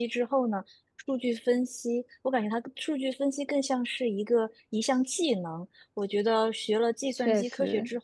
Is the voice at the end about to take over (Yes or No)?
No